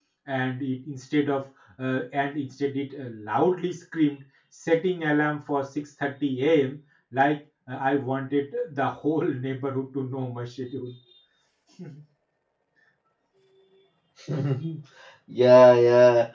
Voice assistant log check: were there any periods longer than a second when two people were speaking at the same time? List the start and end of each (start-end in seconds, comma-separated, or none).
none